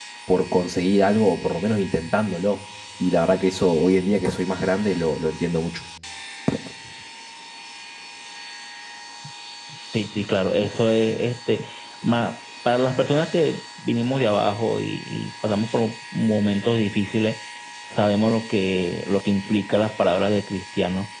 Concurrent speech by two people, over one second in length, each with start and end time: none

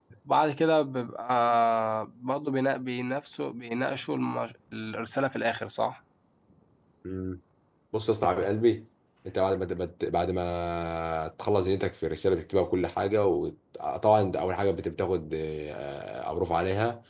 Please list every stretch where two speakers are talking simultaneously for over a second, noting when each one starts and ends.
none

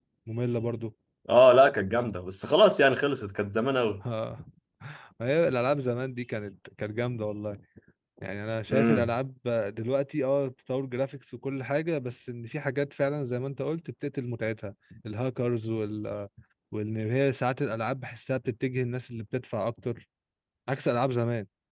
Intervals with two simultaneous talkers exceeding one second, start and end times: none

